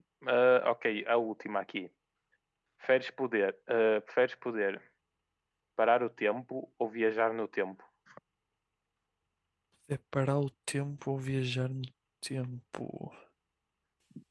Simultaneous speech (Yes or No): No